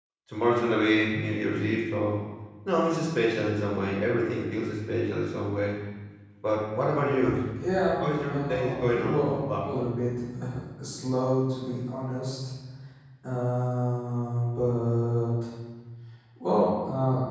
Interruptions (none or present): present